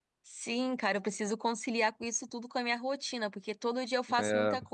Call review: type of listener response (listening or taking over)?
listening